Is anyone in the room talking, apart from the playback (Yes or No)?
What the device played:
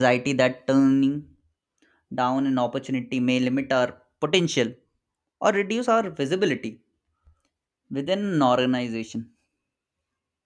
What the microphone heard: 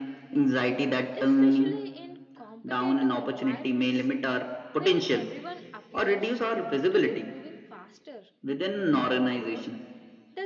Yes